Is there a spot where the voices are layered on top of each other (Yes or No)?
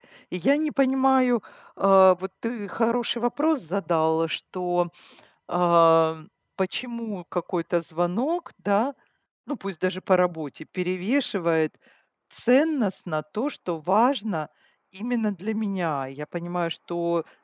No